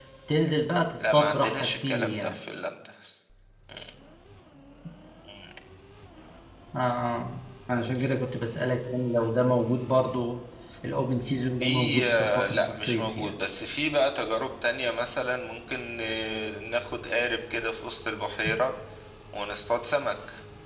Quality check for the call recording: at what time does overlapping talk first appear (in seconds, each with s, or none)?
1.0 s